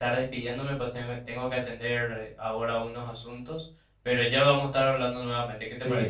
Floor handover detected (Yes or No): Yes